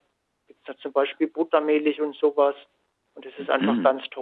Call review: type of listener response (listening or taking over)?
listening